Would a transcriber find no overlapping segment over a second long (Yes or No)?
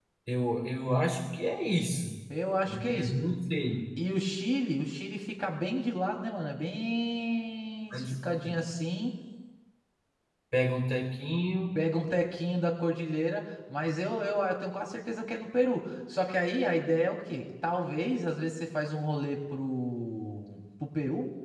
Yes